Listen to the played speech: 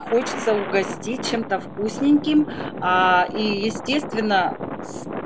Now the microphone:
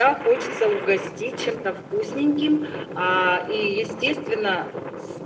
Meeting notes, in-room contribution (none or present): none